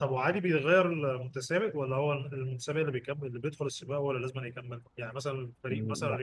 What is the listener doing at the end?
listening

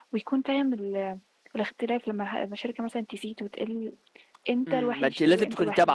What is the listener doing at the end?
taking over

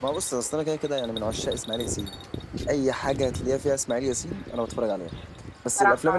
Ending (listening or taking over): listening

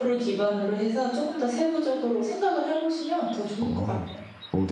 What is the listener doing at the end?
taking over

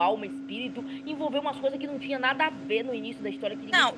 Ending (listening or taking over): taking over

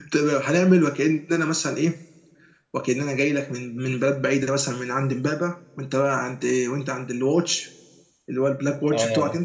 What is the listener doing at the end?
taking over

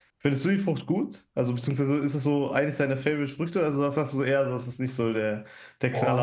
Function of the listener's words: taking over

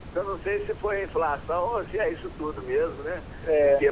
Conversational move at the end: listening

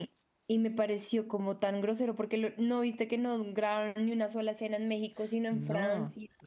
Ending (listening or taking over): taking over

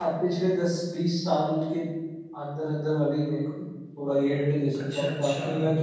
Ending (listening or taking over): listening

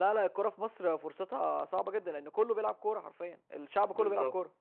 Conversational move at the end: taking over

